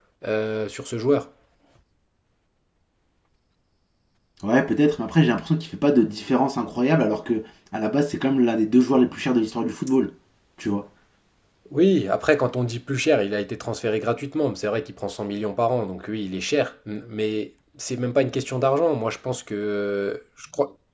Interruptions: none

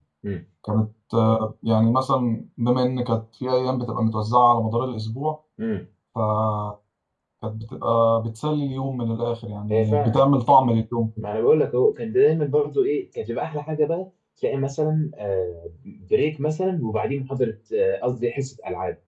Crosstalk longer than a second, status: none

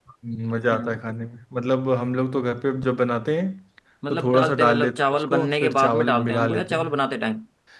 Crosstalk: present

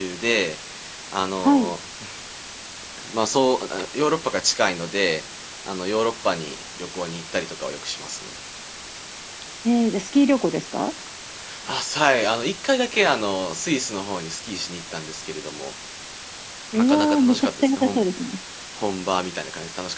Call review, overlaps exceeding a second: present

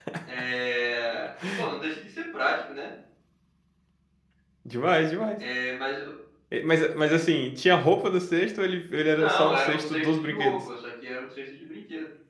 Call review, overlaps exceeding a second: present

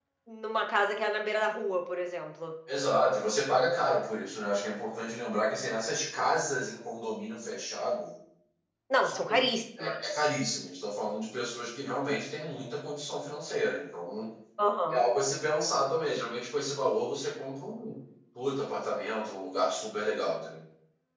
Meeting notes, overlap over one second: none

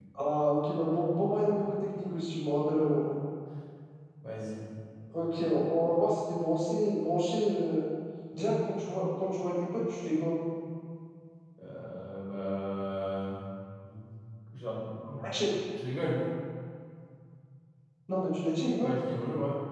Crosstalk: none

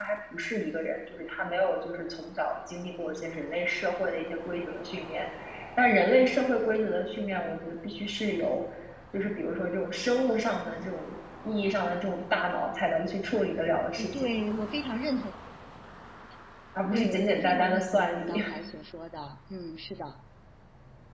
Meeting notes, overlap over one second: present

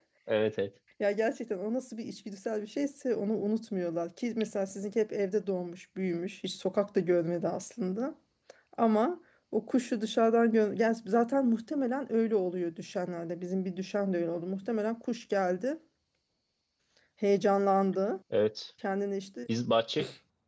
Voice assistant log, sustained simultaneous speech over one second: none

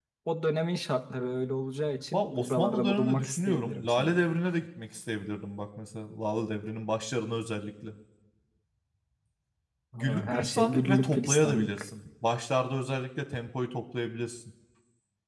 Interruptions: present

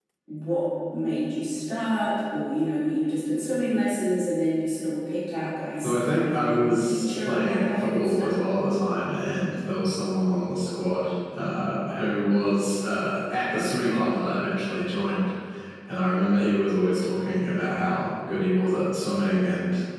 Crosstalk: present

